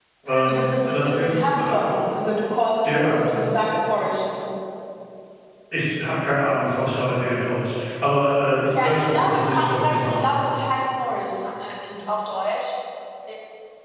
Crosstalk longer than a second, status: present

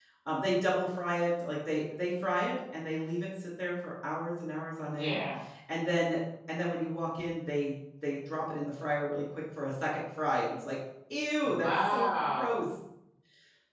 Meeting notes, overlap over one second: present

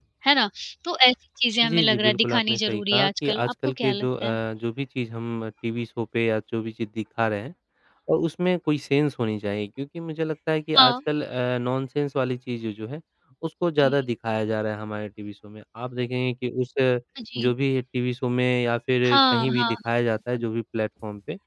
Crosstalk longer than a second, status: present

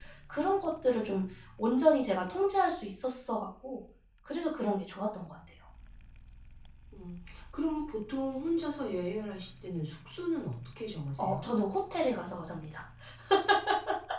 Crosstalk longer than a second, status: none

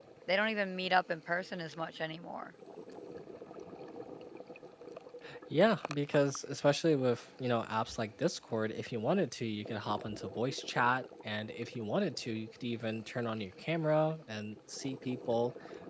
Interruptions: none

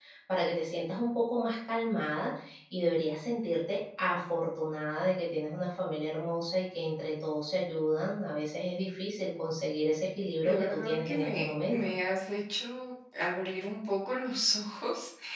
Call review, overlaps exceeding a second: present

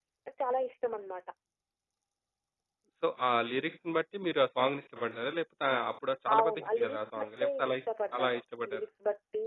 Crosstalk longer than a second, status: present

